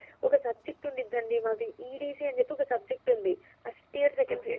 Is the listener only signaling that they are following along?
Yes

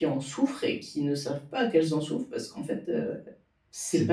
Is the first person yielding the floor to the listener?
Yes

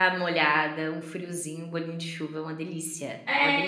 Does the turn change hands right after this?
Yes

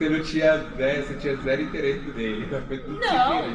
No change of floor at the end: No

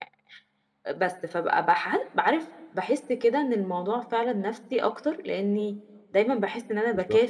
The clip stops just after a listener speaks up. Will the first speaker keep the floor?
Yes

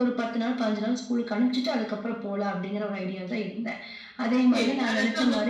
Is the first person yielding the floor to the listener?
Yes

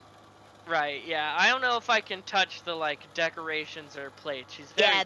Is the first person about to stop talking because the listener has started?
Yes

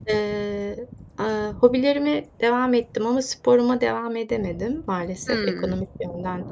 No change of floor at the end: Yes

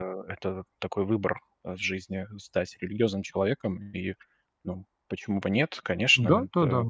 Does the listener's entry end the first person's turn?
Yes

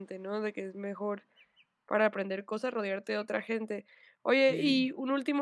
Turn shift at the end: No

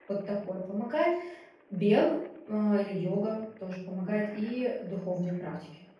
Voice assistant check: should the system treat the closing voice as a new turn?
Yes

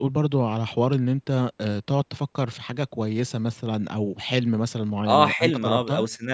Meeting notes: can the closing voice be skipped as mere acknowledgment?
No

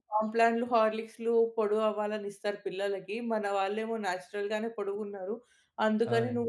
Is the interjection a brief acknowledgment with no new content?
Yes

